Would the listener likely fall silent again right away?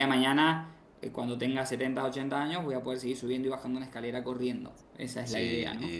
No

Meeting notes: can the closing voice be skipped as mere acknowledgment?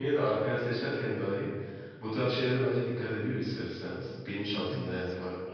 Yes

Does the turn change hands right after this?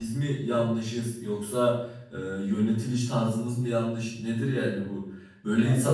No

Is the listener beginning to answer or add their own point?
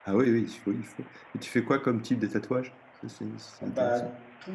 Yes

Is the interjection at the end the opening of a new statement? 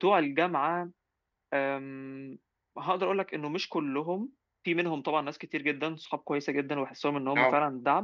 No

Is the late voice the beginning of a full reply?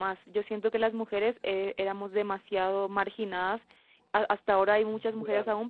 No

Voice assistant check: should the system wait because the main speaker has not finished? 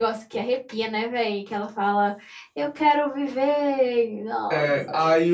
No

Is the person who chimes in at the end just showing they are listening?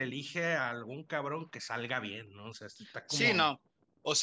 No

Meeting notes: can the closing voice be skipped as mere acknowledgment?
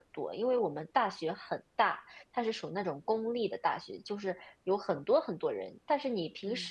Yes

